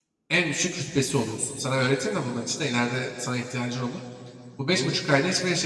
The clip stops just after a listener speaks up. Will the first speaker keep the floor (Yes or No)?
Yes